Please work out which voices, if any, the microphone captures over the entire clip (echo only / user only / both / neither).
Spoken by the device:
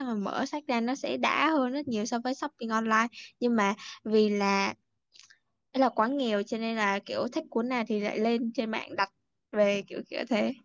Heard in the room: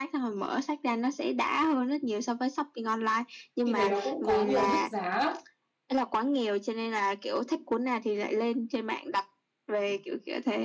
both